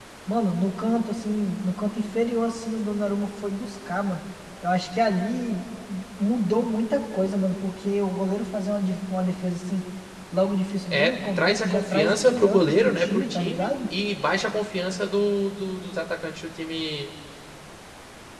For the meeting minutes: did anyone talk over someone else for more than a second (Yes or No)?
Yes